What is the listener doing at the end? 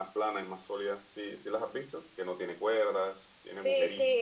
taking over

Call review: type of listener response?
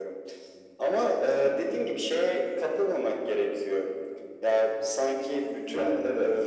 listening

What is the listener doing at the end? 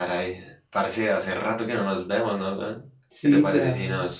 listening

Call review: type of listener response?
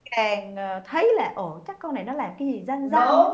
taking over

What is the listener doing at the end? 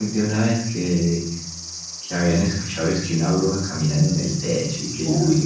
taking over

